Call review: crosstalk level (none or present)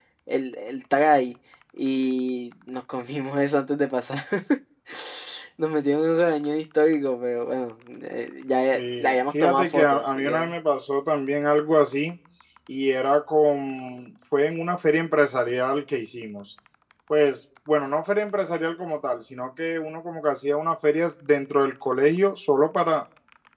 present